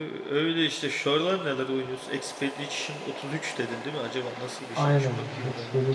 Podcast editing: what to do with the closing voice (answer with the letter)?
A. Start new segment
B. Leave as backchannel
A